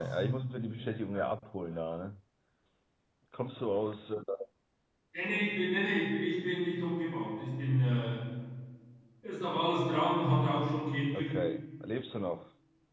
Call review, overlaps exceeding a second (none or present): none